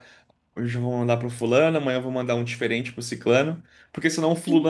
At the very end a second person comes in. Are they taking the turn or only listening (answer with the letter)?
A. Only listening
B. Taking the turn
A